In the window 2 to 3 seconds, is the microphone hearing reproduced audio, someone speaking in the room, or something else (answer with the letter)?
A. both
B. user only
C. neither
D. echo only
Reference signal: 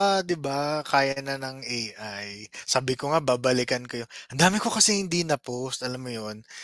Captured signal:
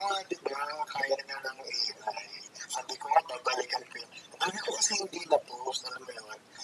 D